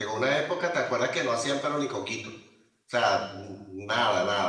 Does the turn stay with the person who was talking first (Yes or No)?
Yes